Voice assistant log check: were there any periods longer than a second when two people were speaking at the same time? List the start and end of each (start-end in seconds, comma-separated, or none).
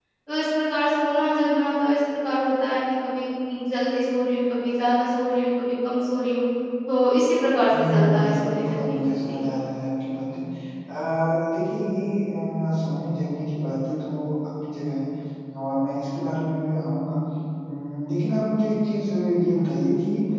7.7-9.4